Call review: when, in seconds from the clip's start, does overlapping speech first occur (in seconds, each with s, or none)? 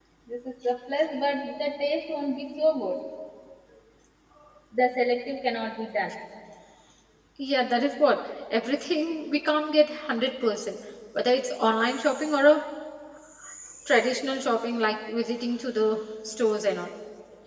none